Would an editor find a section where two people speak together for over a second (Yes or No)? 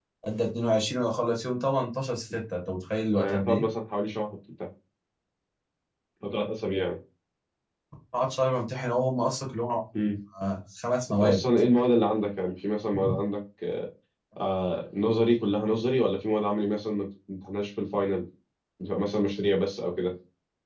No